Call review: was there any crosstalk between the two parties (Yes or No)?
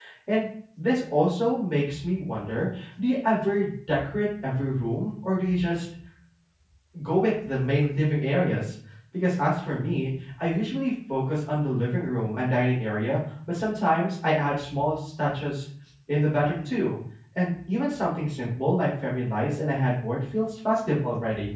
No